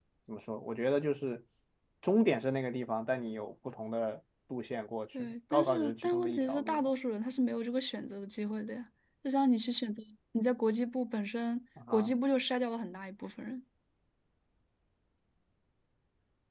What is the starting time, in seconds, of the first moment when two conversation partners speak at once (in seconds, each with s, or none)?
5.2 s